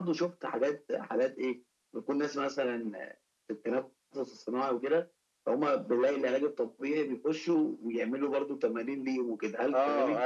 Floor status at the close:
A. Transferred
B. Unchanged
A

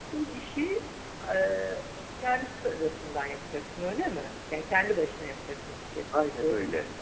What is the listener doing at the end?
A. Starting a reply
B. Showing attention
A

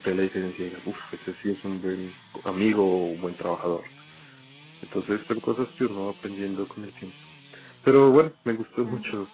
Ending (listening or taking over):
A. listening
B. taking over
A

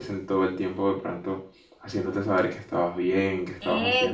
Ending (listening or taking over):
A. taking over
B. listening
A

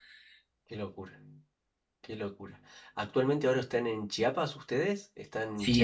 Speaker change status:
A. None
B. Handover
B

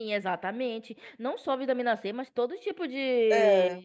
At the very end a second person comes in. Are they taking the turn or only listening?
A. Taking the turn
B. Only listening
B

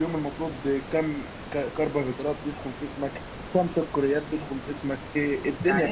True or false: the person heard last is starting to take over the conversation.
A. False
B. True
B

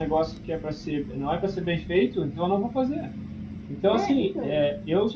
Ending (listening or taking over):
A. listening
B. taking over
A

